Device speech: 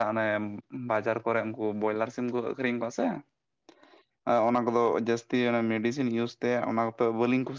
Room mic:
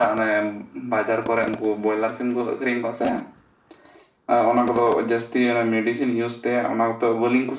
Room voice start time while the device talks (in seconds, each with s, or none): none